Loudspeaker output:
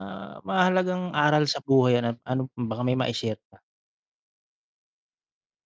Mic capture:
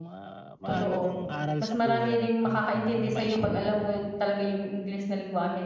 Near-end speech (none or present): present